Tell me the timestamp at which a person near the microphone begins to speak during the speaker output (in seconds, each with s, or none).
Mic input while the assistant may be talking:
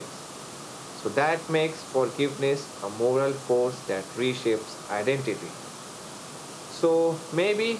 none